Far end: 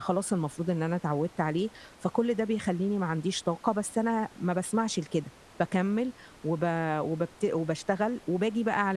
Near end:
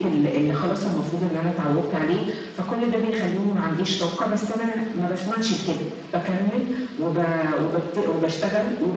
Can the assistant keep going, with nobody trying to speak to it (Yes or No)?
Yes